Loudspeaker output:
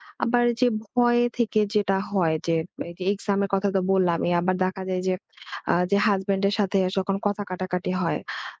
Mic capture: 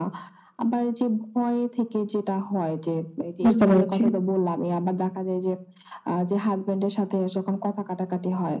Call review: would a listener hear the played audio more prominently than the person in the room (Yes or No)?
No